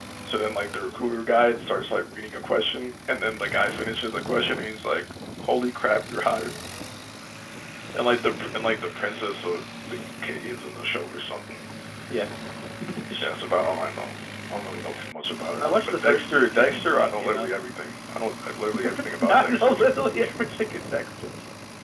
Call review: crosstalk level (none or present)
present